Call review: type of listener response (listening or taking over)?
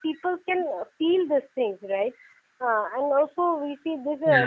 listening